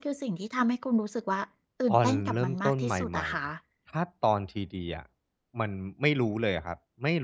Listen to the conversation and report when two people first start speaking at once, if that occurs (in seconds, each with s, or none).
1.9 s